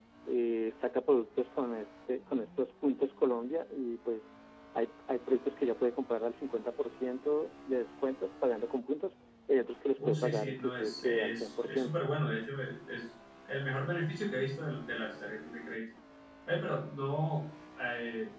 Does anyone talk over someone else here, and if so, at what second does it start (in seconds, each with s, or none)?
10.0 s